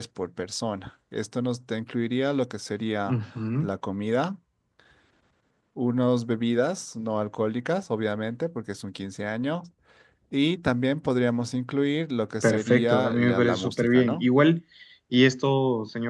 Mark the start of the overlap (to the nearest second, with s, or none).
12 s